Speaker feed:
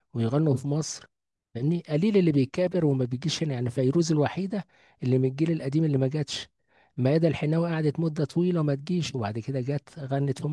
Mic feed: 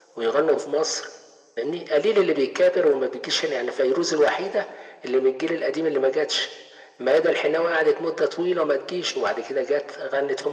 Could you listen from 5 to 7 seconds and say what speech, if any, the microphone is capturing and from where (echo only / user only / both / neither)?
echo only